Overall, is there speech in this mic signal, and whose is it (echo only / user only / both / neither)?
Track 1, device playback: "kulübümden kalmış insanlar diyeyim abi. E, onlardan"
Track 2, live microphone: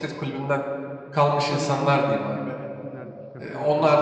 both